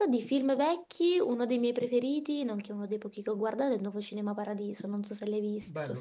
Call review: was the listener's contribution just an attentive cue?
No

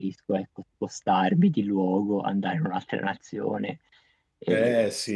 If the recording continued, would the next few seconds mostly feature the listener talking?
Yes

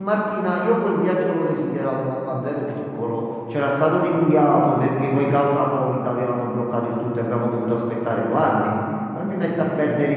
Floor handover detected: No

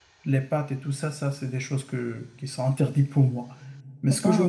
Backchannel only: Yes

